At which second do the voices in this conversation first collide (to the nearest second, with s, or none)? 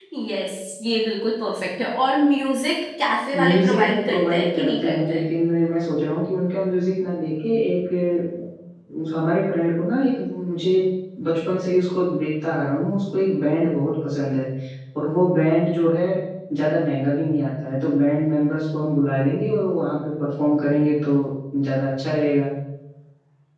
3 s